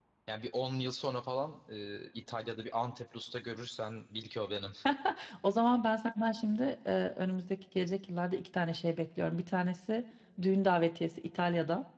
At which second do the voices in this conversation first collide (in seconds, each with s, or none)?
none